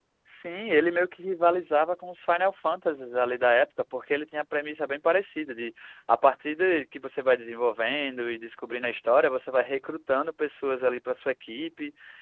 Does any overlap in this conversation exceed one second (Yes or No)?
No